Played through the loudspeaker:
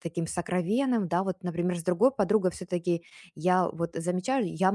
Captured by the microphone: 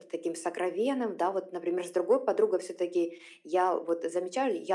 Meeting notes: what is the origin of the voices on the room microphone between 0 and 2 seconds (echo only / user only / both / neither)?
echo only